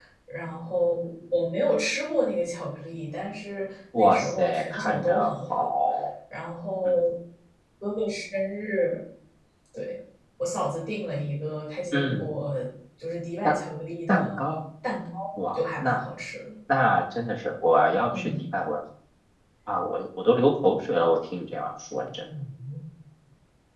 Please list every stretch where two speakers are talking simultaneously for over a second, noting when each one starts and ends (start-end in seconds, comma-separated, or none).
3.9-5.7